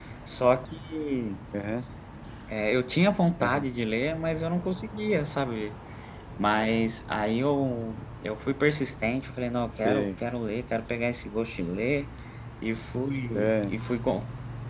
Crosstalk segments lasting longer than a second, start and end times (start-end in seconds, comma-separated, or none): none